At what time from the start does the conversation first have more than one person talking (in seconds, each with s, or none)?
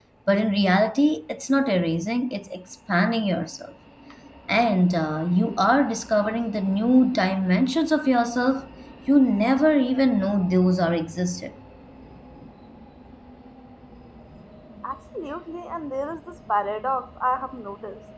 none